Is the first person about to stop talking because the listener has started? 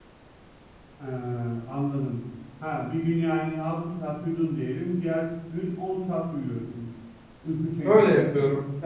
Yes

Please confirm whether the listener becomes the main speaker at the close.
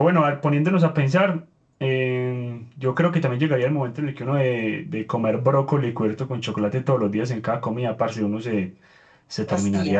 No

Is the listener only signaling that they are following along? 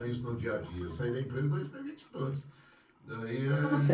No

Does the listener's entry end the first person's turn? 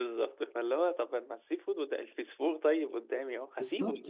Yes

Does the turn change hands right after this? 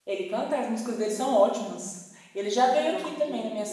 No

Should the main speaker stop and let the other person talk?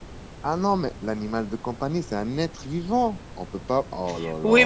Yes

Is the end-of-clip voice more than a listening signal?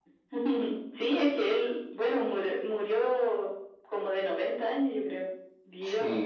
Yes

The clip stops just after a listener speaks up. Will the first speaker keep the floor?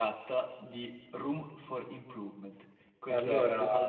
Yes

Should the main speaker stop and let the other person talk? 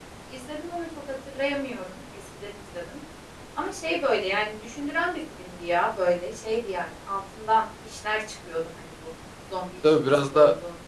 Yes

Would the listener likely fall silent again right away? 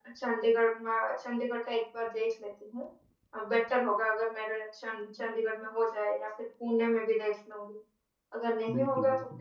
Yes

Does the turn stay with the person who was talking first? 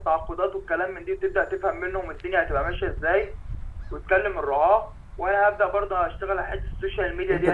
No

